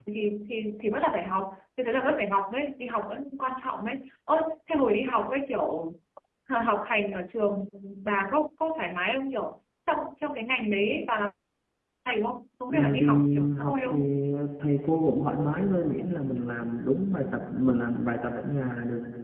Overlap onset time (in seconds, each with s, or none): 12.7 s